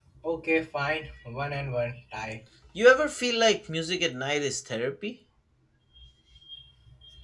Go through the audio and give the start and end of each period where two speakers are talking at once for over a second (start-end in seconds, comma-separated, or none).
none